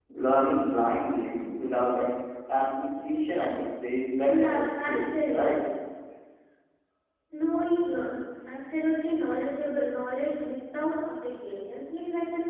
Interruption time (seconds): 4.3 s

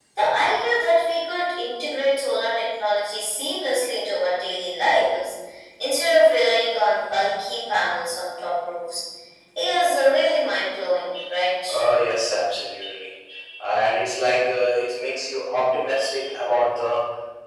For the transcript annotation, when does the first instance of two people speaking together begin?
none

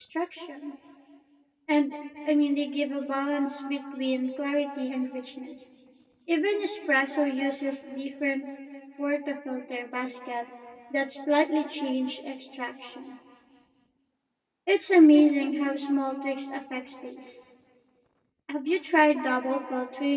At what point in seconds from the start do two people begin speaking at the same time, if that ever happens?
none

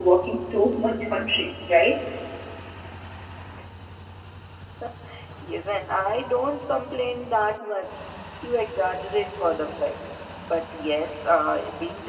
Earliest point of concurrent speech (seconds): none

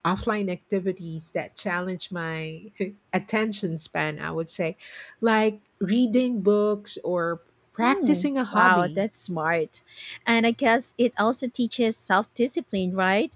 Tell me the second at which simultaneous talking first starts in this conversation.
7.8 s

